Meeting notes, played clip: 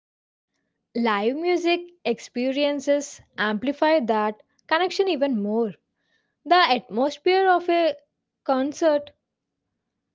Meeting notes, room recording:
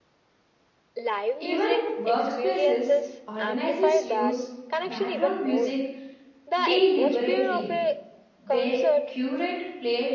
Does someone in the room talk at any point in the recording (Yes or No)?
Yes